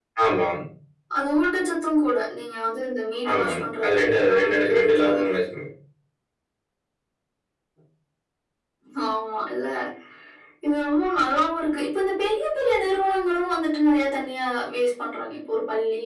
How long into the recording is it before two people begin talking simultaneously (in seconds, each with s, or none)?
3.2 s